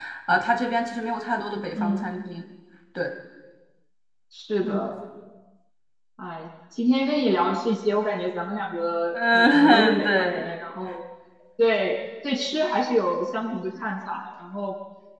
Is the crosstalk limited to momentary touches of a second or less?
No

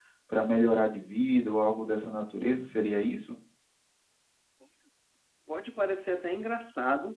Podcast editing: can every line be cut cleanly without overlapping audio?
Yes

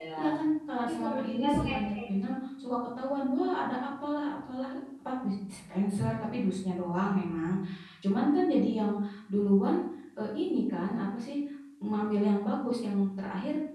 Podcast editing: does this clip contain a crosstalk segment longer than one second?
Yes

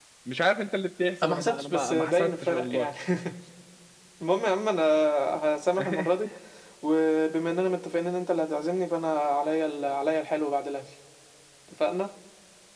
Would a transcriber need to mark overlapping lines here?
Yes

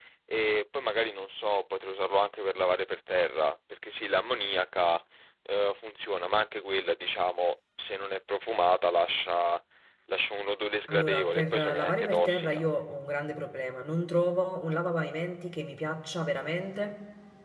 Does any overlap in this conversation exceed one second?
Yes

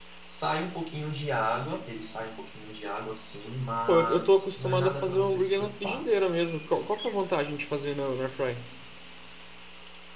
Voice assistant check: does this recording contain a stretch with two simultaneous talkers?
Yes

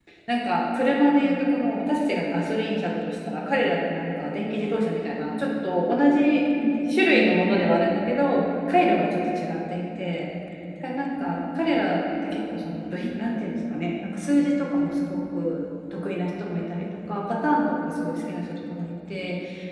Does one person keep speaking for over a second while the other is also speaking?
No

